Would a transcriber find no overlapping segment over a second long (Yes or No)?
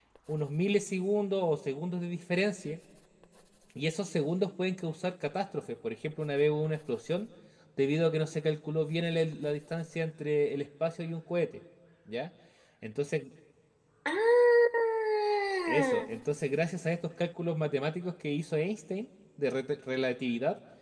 Yes